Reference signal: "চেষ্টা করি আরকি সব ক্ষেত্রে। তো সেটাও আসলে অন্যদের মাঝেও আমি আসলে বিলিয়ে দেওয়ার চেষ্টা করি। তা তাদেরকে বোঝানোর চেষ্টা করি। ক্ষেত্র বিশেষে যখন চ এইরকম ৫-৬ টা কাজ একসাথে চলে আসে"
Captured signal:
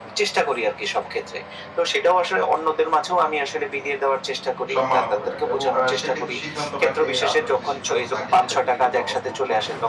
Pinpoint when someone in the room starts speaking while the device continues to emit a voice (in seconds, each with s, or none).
4.7 s